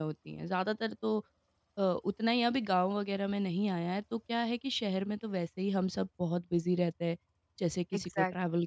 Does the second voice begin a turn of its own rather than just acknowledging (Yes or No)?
Yes